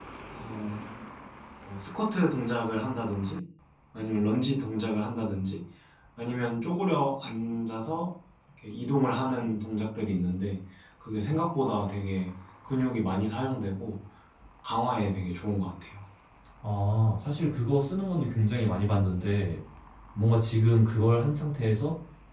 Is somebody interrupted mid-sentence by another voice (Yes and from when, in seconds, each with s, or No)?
No